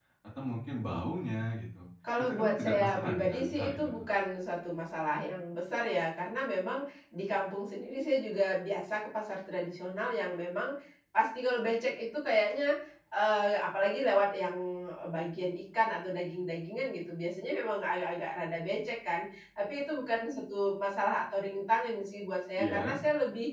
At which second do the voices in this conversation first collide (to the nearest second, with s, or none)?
2 s